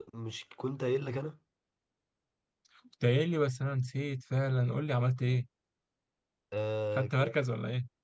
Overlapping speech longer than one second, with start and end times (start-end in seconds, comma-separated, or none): none